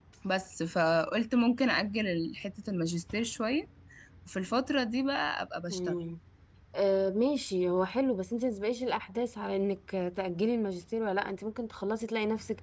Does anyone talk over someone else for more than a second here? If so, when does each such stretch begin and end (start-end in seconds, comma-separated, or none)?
none